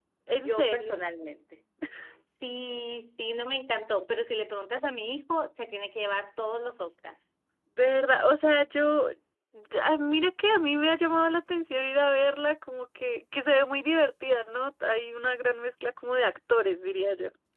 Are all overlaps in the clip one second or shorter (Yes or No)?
Yes